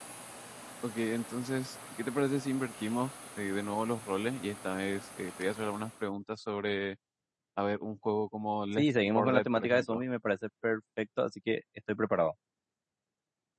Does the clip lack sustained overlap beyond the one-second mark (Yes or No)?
No